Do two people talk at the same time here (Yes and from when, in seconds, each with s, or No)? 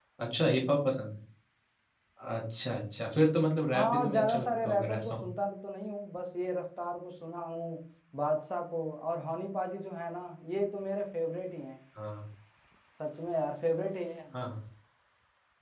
Yes, from 3.7 s